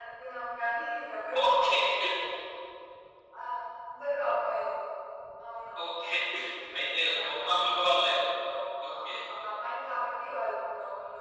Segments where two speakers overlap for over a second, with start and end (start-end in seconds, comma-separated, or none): 6.8-8.1